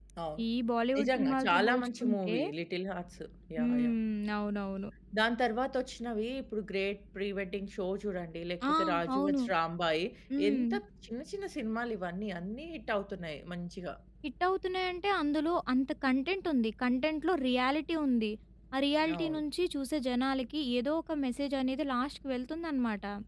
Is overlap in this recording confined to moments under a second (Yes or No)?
No